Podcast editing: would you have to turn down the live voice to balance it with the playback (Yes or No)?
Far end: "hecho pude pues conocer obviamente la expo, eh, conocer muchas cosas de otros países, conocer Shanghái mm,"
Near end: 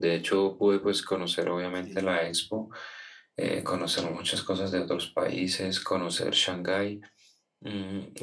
No